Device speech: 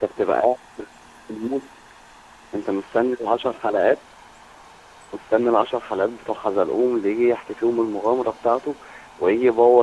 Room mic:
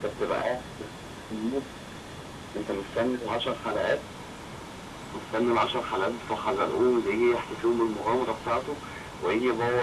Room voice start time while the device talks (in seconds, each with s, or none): none